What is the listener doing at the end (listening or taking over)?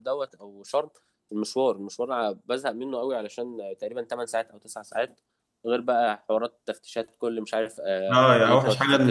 taking over